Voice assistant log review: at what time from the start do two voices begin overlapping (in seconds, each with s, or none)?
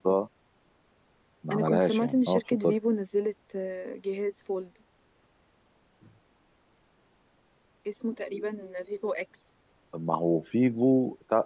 1.5 s